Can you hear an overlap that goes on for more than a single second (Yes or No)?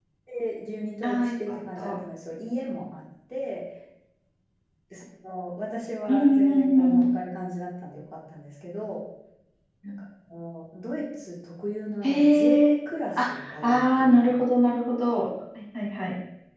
Yes